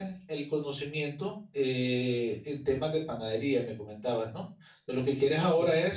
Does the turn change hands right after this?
No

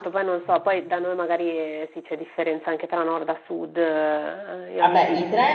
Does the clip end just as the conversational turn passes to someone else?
Yes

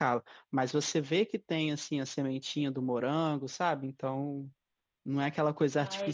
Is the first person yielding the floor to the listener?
No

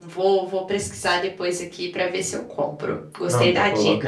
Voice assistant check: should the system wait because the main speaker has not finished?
No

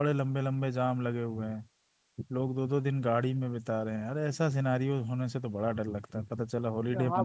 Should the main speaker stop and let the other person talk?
Yes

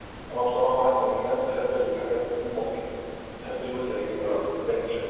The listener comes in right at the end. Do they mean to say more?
No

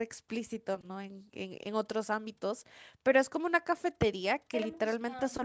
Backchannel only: Yes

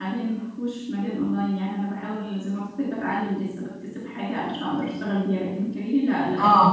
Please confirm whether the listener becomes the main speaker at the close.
No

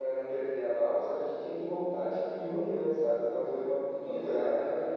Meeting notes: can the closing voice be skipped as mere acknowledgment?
Yes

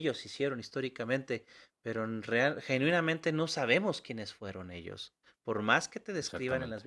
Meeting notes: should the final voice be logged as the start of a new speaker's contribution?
No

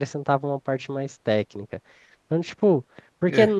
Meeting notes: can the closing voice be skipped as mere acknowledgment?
Yes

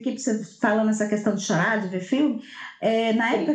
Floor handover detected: No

